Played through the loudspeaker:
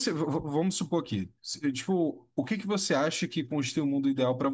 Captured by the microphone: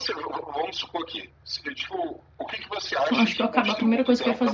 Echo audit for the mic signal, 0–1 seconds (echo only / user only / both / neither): echo only